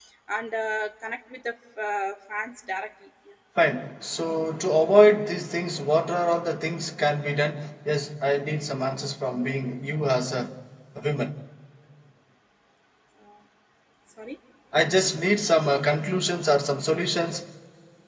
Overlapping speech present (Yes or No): No